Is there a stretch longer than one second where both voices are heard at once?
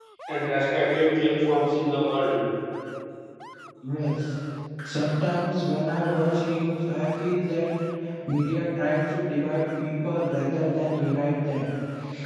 No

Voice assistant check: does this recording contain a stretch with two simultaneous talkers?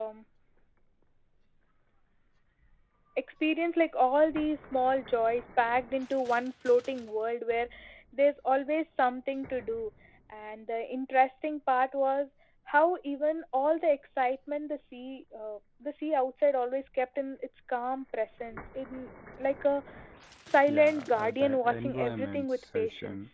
Yes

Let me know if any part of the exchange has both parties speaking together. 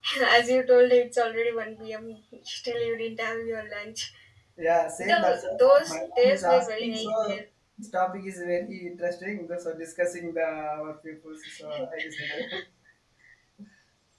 Yes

